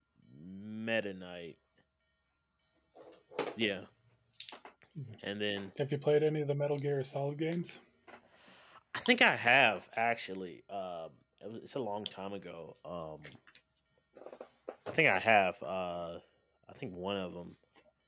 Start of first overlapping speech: none

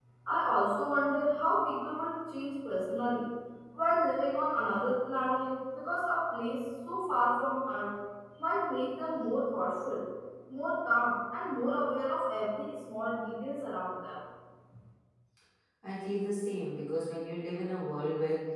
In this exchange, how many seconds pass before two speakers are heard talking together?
none

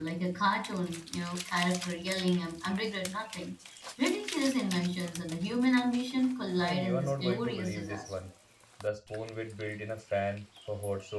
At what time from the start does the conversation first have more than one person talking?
6.6 s

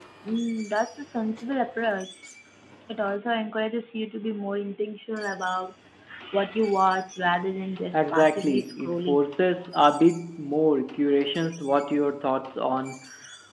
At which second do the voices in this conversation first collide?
7.9 s

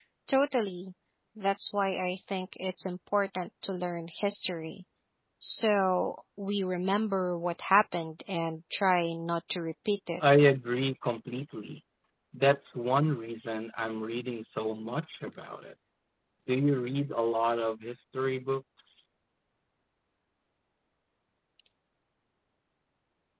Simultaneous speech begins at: none

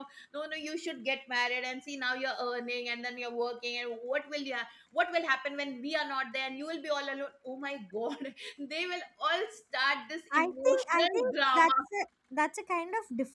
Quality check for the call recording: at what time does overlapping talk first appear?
10.3 s

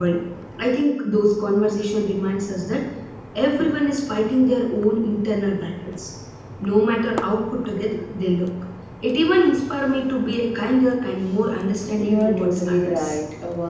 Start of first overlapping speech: 12.0 s

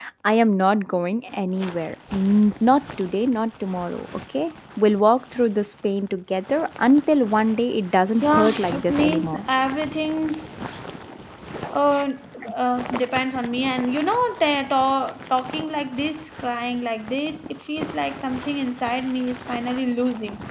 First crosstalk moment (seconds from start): 8.2 s

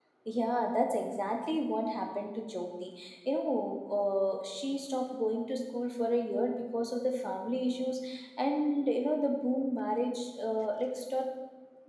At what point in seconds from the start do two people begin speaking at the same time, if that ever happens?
none

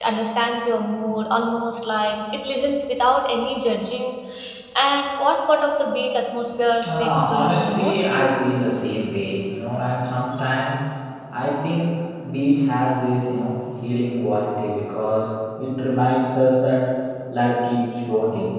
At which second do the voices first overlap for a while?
6.8 s

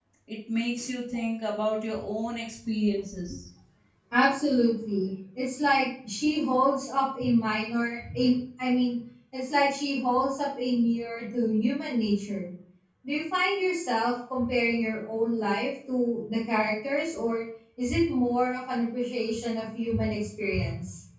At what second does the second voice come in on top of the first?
none

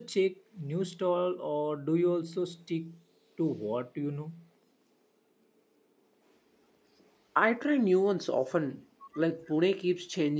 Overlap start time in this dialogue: none

